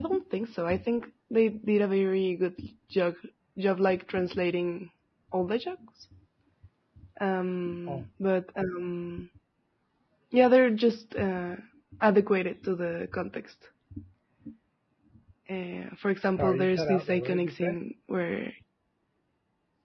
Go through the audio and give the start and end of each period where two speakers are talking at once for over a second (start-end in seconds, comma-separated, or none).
16.3-17.8